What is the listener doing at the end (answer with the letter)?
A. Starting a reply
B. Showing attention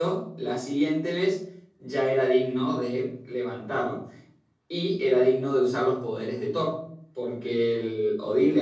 B